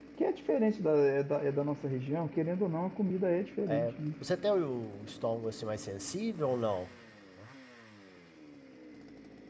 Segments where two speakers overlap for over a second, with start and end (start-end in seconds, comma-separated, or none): none